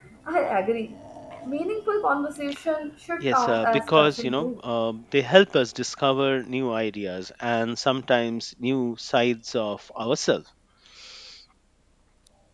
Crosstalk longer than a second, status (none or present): present